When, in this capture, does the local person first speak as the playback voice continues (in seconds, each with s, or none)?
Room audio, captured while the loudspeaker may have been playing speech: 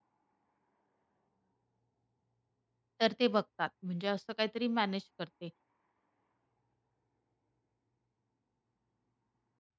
3.0 s